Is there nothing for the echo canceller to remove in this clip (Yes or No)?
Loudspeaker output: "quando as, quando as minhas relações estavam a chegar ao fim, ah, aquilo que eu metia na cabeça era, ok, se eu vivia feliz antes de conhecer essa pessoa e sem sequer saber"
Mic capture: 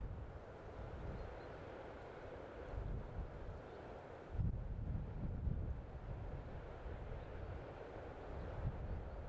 Yes